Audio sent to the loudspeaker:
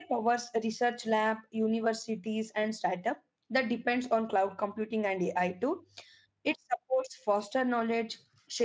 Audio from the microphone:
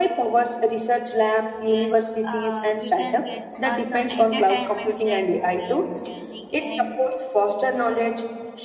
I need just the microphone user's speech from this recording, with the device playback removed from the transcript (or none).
Yes, uh, we can get uh, some entertainments like movies, music, and